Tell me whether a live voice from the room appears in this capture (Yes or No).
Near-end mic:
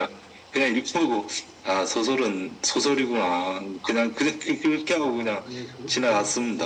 Yes